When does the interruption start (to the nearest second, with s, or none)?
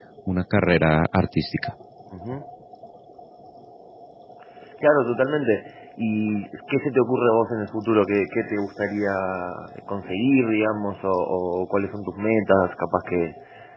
none